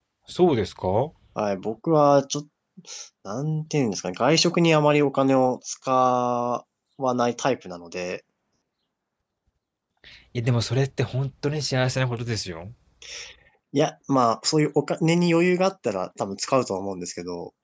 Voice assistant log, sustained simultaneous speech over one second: none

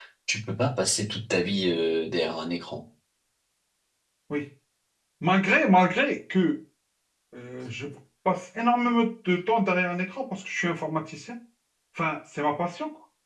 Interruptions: none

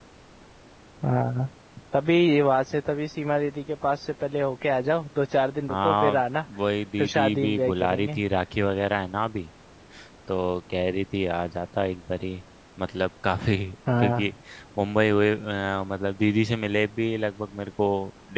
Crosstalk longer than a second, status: present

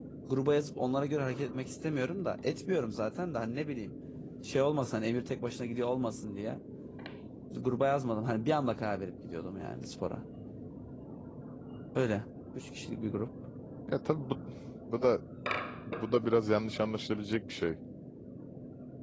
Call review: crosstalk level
none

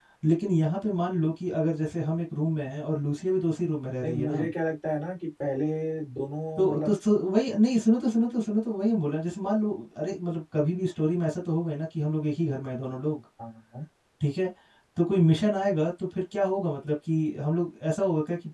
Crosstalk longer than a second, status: none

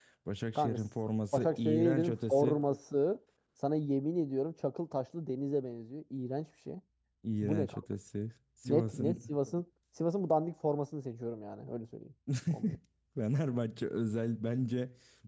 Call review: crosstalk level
present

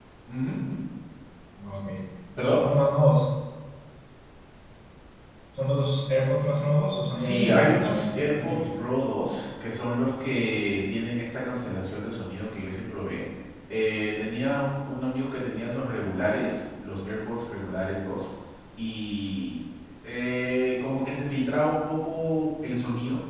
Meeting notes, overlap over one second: present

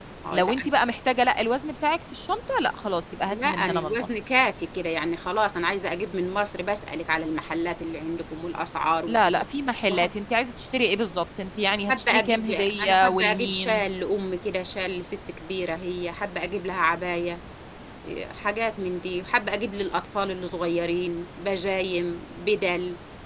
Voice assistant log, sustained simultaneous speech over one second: present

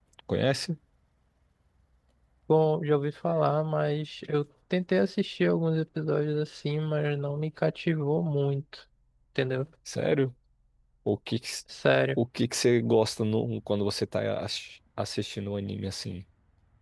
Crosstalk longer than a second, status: none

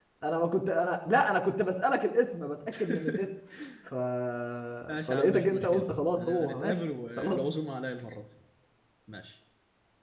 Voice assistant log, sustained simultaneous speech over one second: present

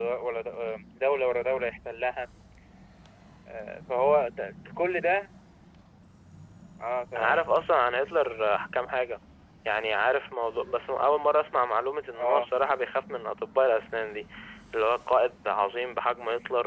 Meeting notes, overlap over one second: none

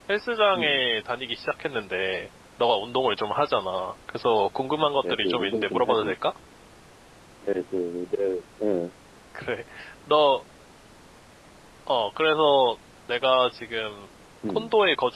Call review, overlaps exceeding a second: present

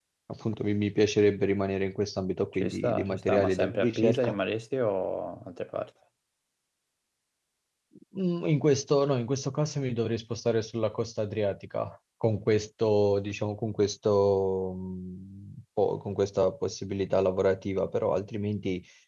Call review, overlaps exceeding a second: present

